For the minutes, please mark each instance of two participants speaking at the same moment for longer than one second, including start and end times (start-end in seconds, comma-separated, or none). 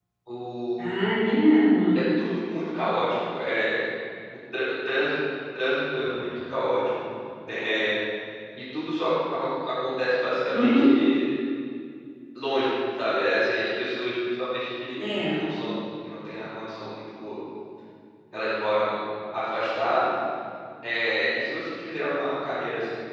none